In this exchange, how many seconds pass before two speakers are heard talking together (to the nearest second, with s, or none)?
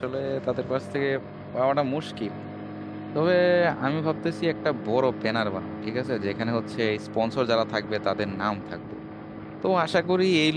none